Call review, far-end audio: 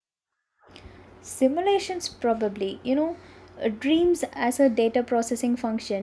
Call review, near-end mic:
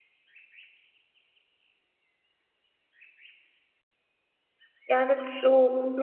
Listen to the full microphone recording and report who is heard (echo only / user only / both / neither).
user only